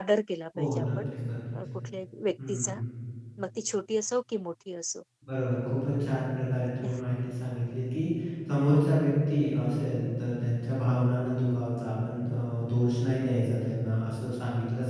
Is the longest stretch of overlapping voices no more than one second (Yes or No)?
Yes